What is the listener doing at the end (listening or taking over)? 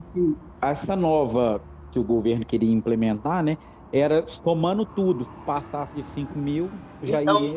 taking over